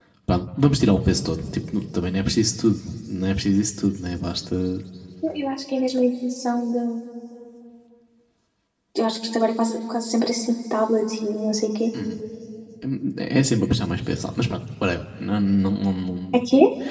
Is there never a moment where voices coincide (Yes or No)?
Yes